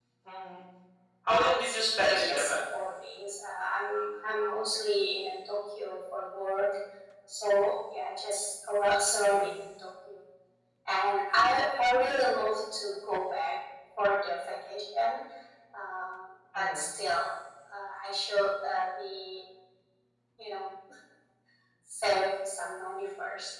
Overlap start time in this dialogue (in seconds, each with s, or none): 1.4 s